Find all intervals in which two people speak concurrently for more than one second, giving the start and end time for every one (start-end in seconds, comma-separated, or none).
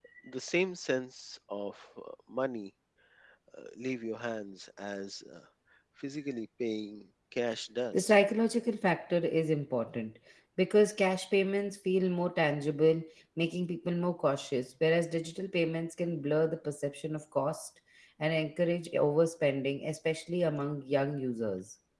none